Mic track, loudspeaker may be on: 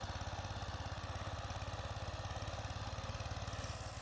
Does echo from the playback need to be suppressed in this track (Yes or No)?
No